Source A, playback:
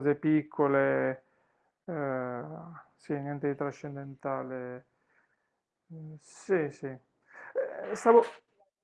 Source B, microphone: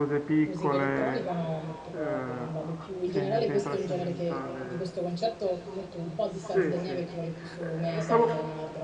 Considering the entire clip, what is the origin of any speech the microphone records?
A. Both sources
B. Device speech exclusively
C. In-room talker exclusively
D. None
A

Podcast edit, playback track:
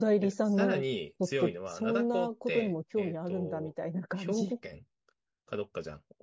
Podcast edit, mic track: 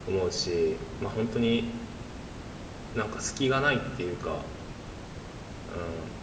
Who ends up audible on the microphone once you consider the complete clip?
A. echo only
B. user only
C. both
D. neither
B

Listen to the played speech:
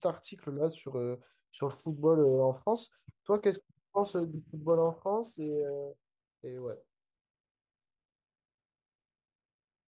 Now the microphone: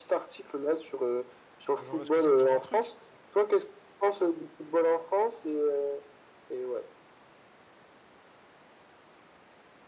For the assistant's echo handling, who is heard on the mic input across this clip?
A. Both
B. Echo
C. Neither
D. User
A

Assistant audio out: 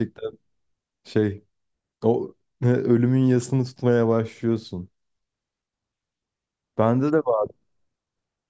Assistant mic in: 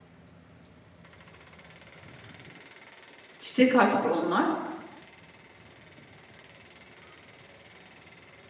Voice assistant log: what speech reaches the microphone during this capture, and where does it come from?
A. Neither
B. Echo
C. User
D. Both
C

